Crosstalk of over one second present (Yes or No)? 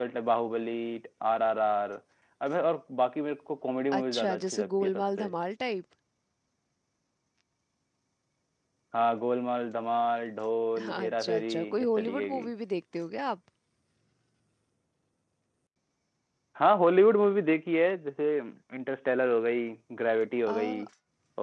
Yes